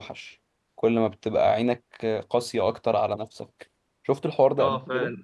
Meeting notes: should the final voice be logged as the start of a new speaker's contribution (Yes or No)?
Yes